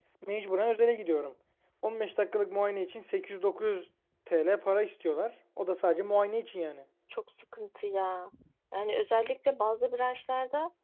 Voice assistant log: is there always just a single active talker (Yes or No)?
Yes